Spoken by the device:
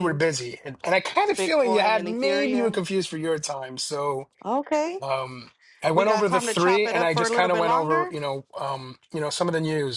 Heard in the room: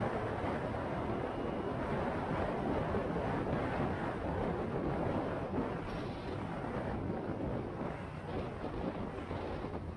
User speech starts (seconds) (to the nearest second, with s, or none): none